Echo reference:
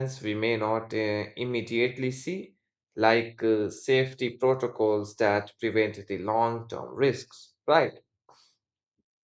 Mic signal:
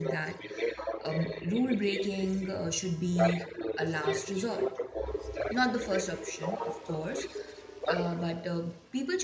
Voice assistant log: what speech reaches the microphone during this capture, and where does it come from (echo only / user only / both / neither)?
both